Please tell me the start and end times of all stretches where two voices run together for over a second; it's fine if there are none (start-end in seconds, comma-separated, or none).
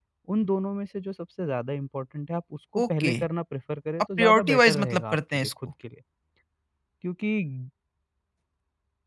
4.2-5.5